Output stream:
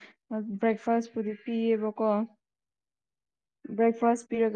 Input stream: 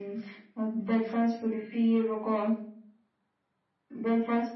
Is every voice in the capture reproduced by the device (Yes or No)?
Yes